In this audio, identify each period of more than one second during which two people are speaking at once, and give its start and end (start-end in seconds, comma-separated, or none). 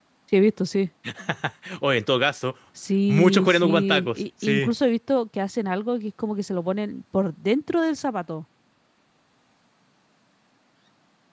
3.1-4.7